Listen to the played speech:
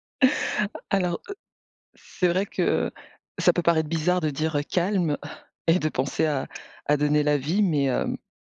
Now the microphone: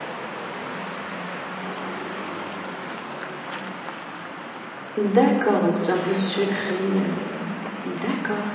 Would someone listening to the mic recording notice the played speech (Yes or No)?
No